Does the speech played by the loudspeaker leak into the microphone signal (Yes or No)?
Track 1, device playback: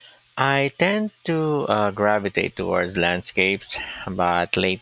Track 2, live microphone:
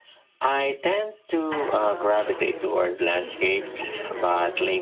Yes